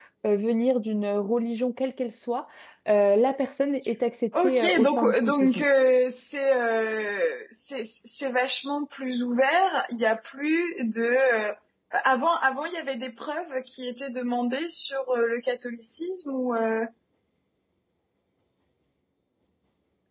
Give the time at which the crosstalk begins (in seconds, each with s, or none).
4.3 s